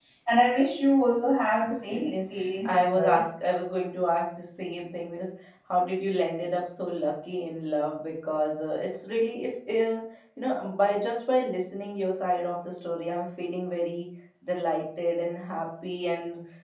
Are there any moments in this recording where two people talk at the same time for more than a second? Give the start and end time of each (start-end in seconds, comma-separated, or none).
1.9-3.2